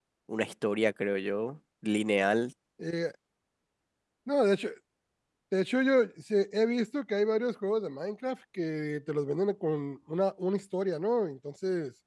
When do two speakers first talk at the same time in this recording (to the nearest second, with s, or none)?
none